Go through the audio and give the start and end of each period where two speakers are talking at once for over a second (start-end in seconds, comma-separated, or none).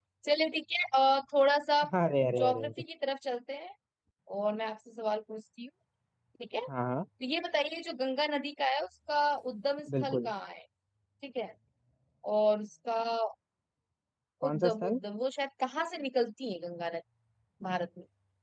none